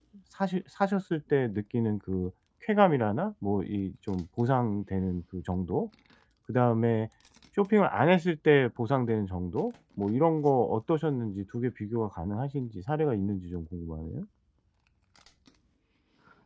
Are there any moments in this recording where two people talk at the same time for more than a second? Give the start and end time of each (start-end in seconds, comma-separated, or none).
none